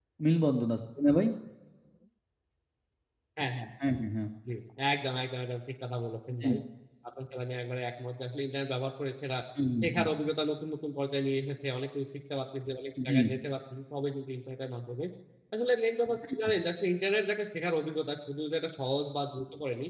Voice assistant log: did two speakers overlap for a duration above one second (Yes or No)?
No